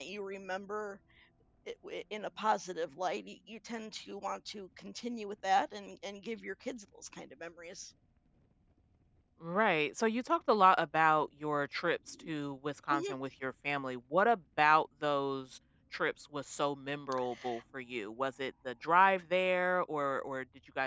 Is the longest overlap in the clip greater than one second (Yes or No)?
No